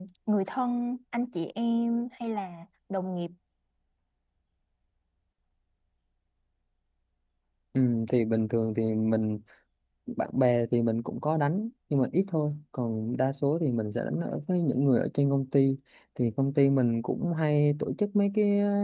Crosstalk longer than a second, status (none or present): none